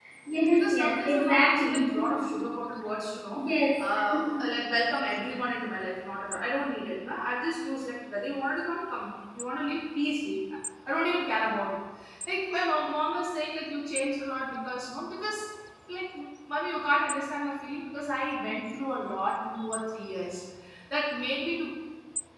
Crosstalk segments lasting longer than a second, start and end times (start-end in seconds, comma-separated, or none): 0.5-1.8